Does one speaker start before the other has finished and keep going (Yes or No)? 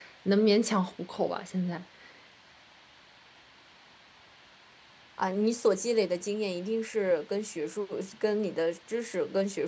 No